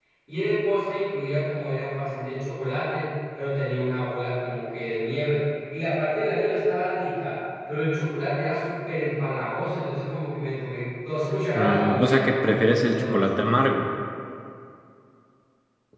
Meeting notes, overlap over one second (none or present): present